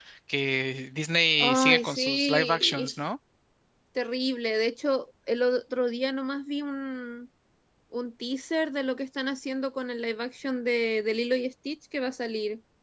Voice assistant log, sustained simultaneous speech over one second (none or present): present